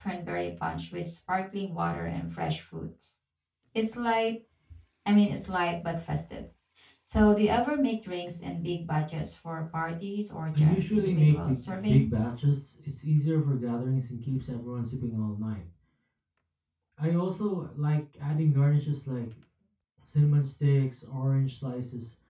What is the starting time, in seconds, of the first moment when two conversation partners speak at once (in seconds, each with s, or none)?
10.5 s